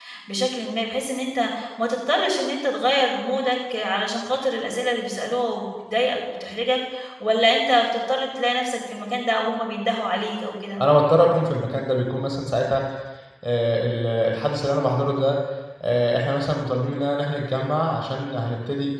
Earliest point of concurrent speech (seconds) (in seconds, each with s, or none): none